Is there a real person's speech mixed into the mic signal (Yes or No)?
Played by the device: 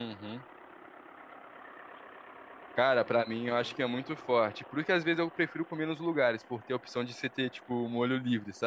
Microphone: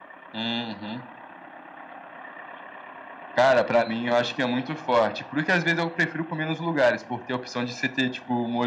No